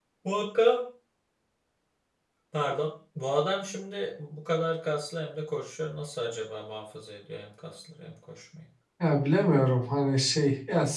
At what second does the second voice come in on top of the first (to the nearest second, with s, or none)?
none